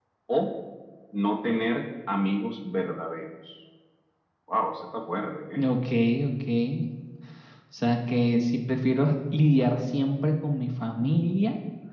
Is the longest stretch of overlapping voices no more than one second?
Yes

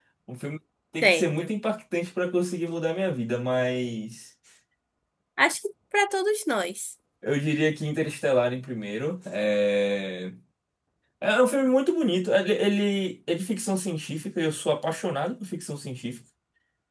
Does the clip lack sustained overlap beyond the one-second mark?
Yes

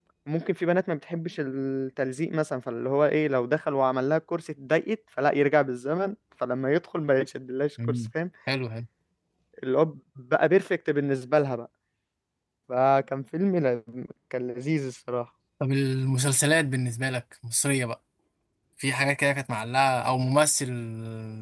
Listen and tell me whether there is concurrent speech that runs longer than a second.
No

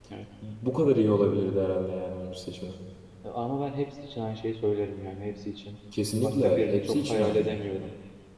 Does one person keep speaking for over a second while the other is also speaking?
Yes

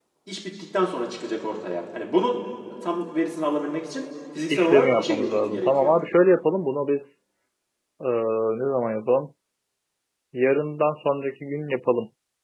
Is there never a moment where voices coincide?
No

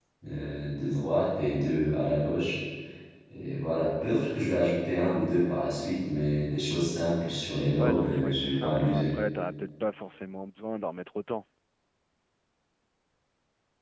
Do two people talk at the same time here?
Yes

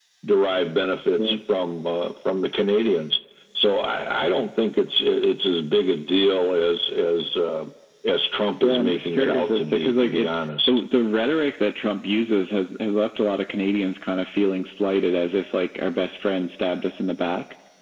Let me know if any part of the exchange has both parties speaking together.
Yes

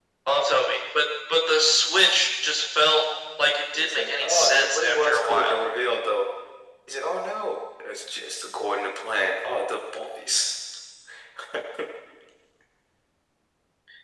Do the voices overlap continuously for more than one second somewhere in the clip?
Yes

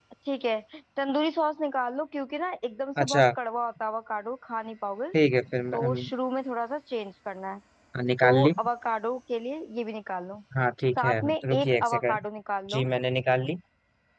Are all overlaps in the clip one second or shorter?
No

